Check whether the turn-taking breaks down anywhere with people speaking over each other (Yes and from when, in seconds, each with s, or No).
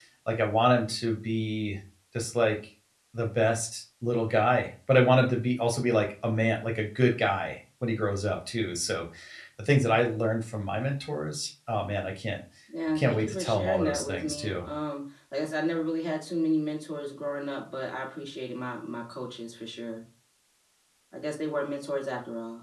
Yes, from 13.0 s